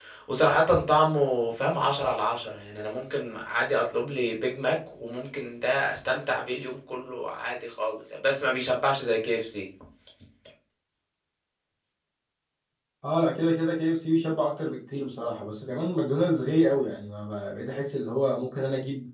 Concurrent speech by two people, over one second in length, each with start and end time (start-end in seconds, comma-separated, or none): none